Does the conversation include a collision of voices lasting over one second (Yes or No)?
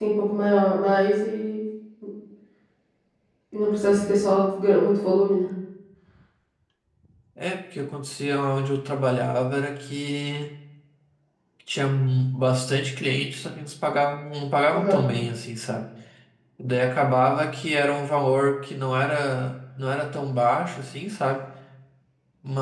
No